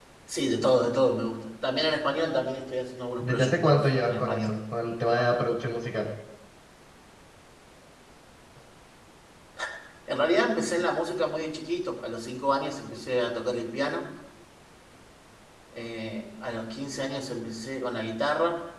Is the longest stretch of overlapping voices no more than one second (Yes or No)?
No